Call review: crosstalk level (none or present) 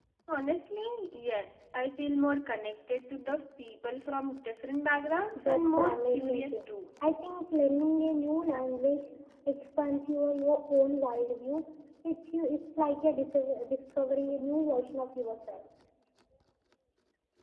present